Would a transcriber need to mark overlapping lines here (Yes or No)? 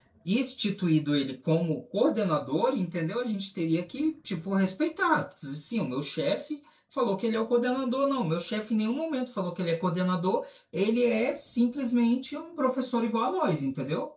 No